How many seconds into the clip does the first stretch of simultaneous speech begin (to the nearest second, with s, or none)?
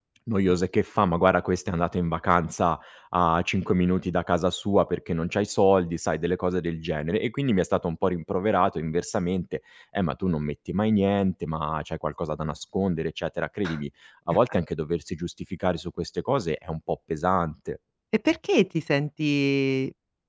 none